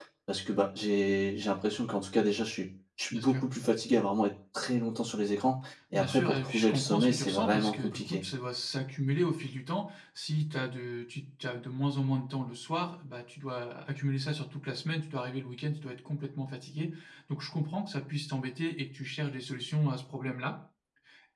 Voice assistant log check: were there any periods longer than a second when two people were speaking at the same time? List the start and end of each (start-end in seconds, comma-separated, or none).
5.9-8.2